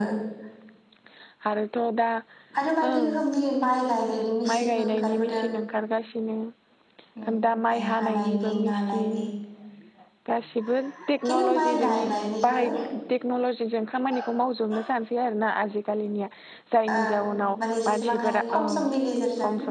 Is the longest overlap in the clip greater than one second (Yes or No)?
Yes